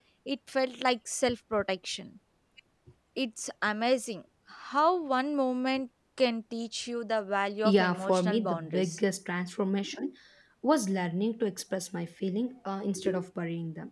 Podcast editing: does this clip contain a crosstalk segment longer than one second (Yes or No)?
Yes